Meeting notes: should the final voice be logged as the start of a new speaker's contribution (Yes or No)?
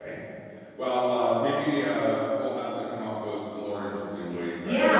Yes